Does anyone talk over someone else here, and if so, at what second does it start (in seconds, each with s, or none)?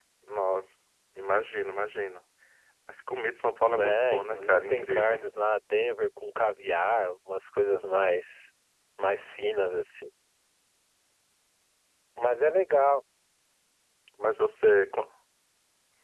3.7 s